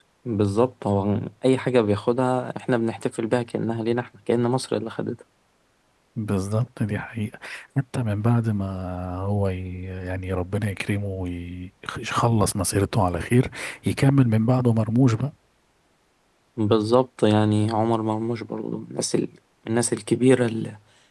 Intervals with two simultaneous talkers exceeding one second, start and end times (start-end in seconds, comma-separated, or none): none